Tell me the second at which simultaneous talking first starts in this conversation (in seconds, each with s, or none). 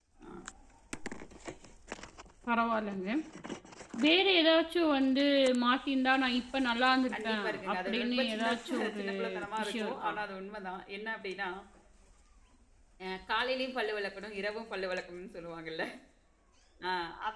7.1 s